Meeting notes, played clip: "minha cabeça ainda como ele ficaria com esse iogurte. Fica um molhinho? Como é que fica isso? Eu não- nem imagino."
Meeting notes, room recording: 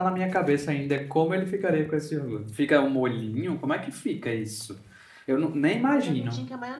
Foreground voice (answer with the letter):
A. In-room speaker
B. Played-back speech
B